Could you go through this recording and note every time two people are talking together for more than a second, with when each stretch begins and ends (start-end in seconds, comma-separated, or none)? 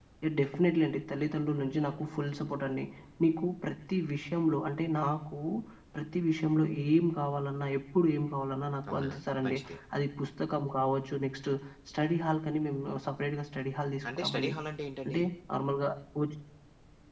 none